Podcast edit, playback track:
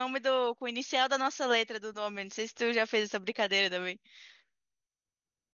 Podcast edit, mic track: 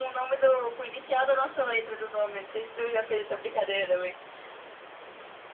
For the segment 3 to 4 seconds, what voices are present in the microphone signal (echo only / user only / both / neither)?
echo only